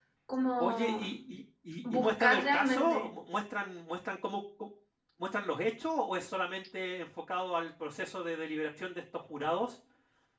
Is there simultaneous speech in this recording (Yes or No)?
Yes